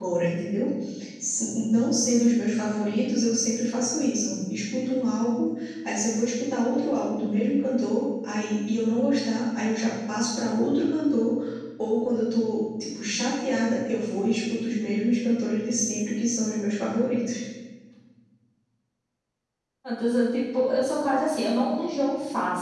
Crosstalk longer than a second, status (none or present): none